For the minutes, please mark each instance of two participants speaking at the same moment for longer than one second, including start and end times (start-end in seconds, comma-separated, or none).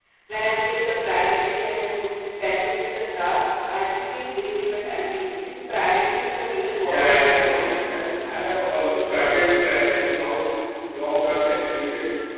6.8-8.1